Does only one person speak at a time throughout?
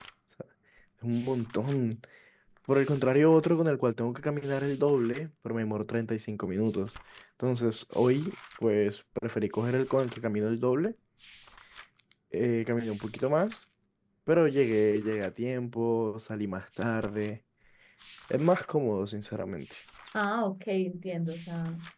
Yes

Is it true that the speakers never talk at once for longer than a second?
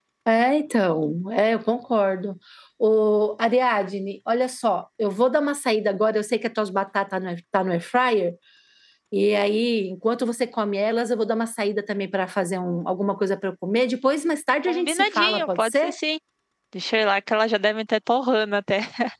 No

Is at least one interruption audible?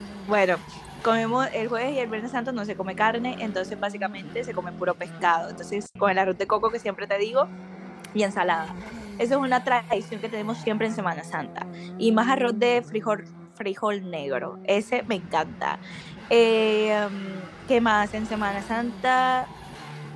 No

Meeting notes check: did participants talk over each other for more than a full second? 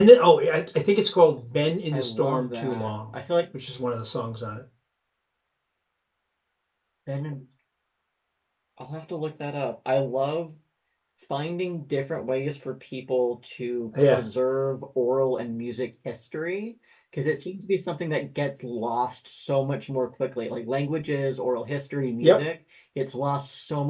Yes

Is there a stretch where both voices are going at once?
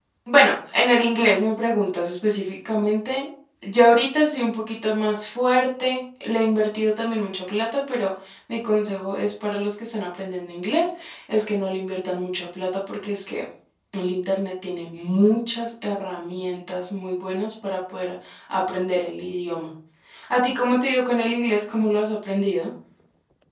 No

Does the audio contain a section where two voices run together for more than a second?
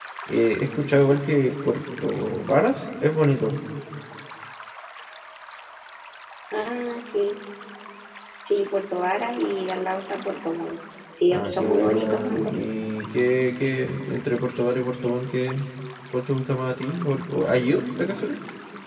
Yes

